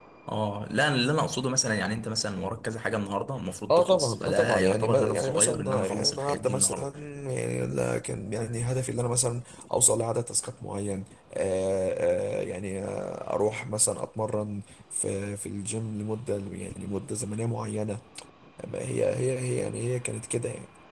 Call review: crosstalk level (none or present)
present